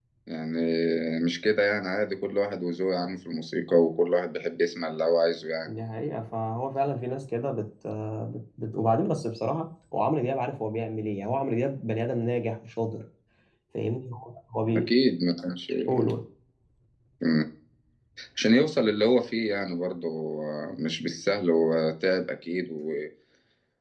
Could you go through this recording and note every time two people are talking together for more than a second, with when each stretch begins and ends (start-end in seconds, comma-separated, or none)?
none